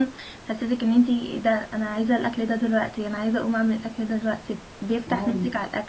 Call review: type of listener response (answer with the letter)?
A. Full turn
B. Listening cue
A